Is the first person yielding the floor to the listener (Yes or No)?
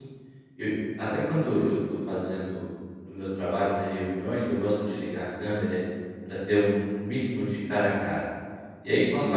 No